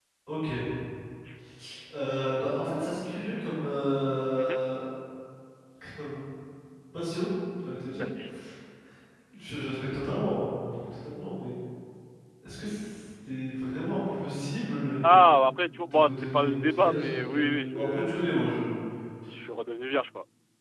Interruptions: present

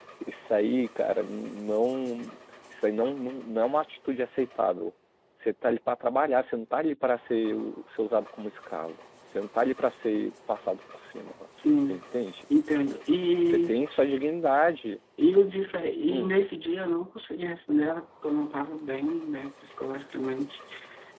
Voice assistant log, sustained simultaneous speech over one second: none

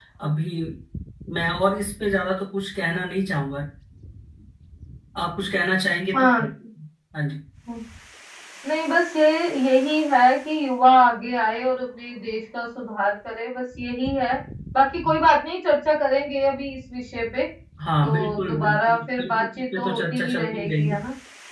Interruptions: present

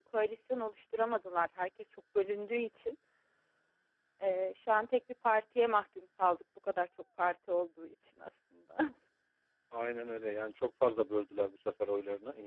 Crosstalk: none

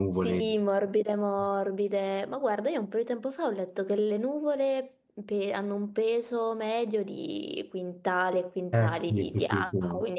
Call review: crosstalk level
present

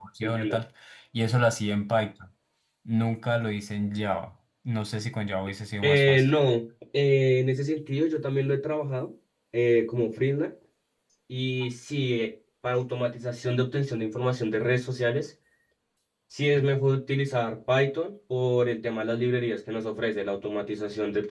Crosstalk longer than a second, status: none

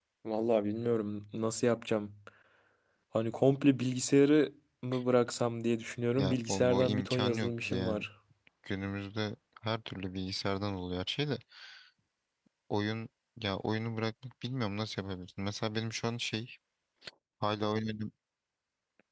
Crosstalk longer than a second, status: present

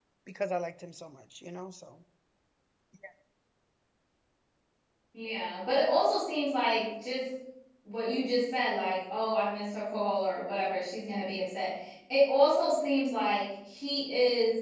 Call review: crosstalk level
none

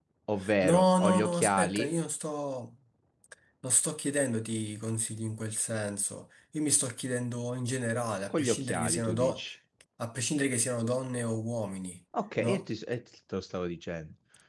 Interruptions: present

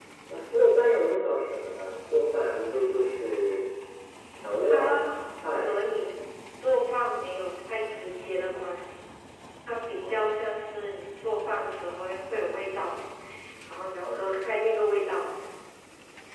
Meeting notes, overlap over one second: none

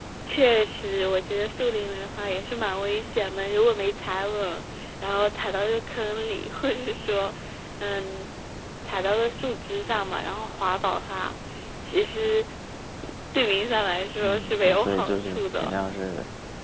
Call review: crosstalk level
present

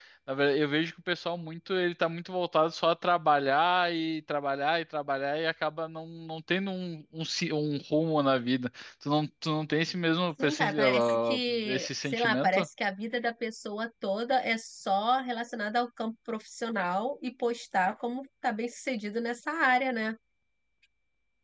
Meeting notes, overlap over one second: present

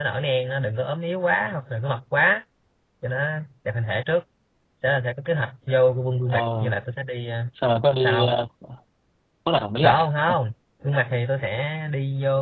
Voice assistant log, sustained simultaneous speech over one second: none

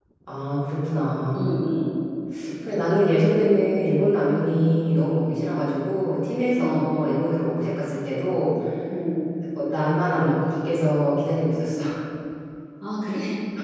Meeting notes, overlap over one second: none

